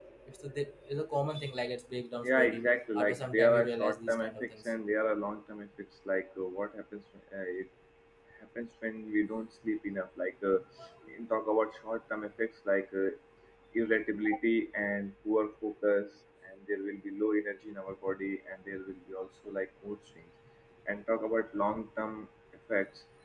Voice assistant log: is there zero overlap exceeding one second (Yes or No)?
No